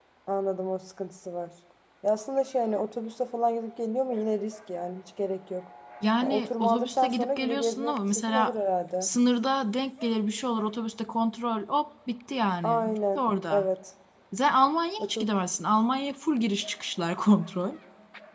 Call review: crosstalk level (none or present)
present